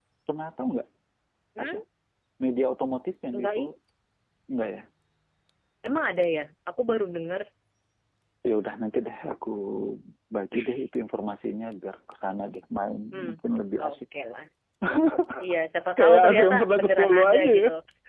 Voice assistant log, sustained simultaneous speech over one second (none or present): present